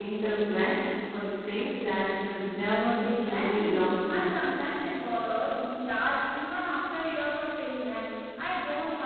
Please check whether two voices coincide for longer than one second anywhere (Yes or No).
Yes